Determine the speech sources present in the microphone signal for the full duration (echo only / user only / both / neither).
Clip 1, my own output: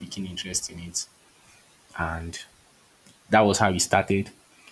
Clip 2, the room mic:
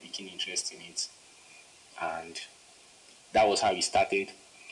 echo only